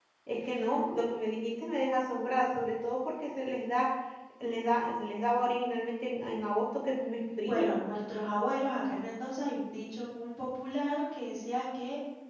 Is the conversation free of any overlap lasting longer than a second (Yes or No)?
Yes